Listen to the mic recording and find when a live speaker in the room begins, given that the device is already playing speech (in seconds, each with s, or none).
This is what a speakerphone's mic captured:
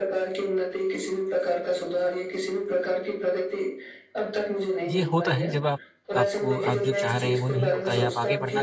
4.9 s